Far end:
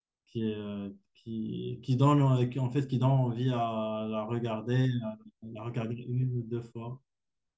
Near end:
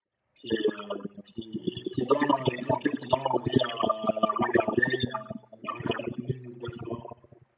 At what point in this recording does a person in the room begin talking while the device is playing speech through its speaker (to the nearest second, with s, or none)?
none